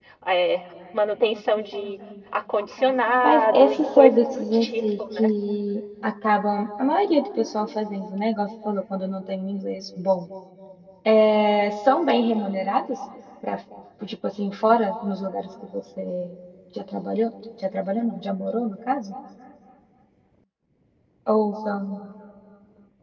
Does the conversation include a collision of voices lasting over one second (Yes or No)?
Yes